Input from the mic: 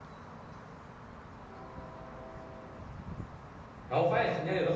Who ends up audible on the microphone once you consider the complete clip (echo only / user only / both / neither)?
user only